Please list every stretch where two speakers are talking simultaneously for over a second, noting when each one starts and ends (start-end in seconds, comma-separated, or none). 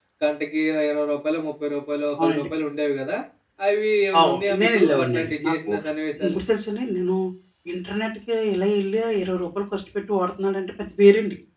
4.2-5.7